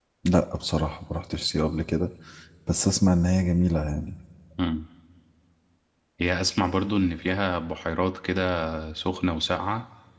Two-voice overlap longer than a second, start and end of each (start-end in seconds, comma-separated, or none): none